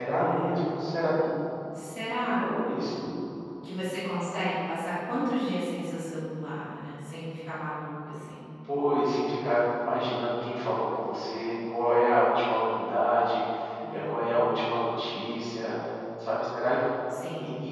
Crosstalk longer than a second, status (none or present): none